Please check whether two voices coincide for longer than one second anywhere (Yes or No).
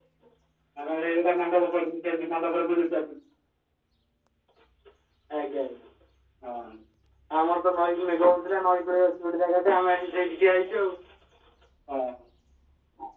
No